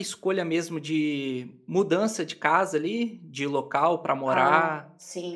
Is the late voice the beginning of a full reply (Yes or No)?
Yes